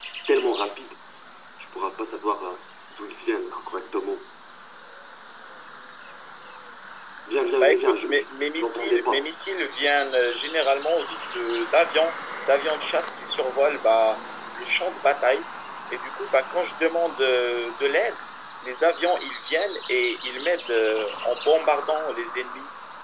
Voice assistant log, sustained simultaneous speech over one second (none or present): present